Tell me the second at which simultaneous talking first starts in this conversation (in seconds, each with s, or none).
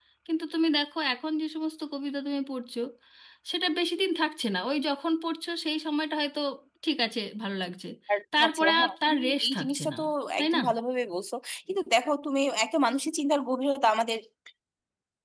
8.4 s